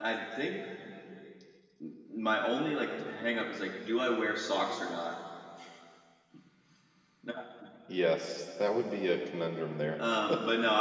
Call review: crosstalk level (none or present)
none